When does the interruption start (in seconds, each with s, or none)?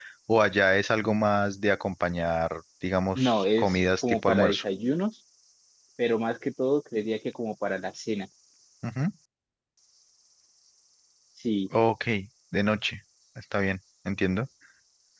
3.2 s